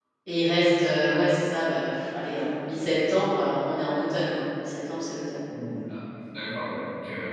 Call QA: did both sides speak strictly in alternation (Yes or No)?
Yes